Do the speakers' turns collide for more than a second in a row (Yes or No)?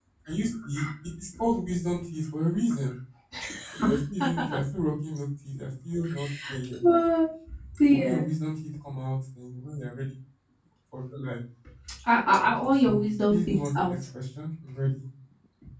Yes